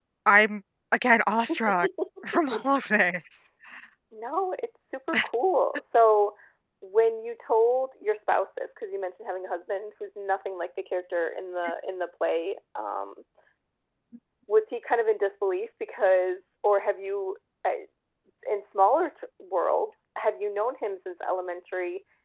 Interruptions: none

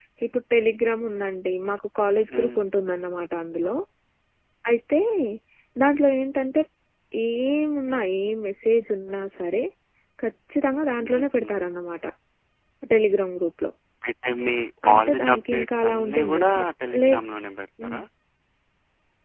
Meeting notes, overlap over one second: present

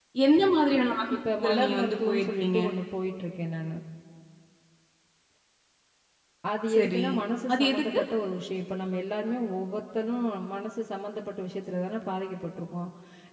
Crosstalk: present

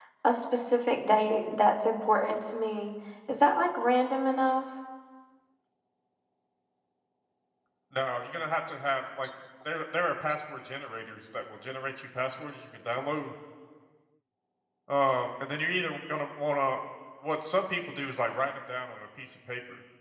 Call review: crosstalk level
none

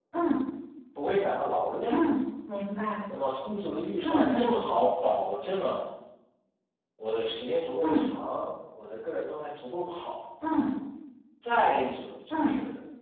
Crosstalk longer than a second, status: none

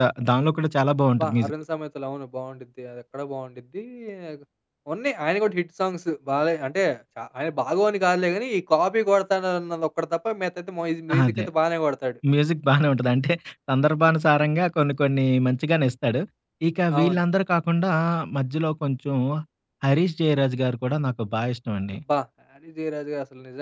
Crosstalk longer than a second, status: none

